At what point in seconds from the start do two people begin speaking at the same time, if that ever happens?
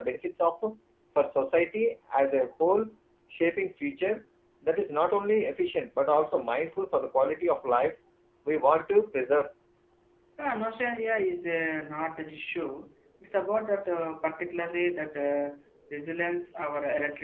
none

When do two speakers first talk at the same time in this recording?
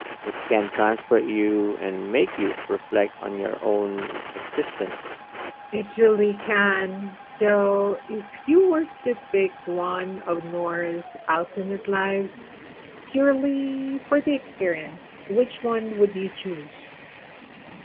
none

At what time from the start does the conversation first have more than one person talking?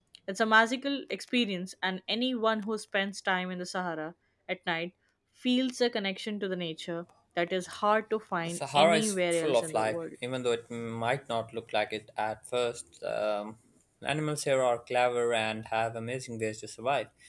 8.4 s

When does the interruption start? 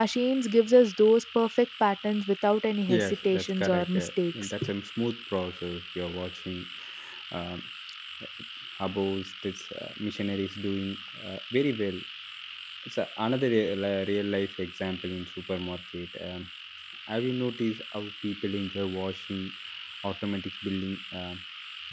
2.9 s

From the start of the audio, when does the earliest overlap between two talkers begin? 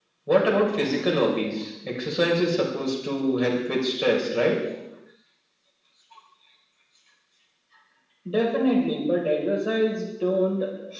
none

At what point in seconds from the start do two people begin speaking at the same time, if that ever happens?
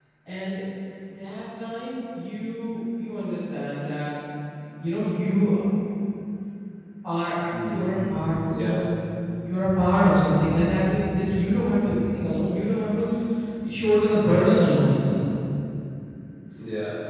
7.5 s

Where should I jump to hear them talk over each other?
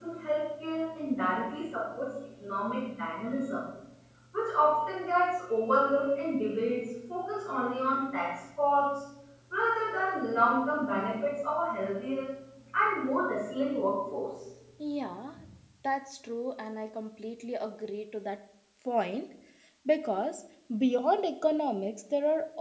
none

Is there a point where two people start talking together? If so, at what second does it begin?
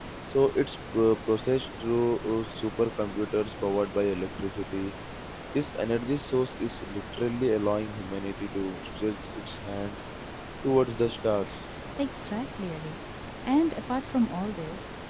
none

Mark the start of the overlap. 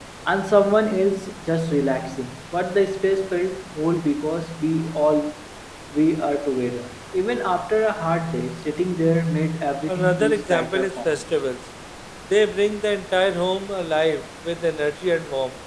9.9 s

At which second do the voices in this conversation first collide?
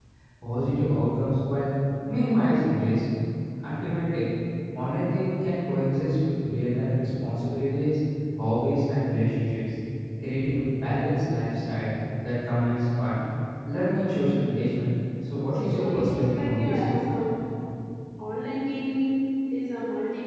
15.5 s

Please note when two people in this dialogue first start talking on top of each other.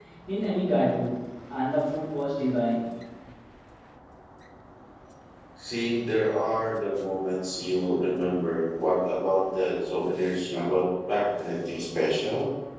none

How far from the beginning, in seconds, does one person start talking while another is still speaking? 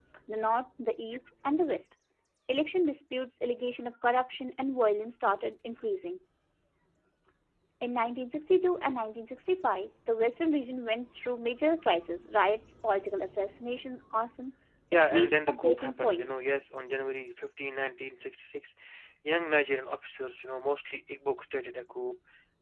14.9 s

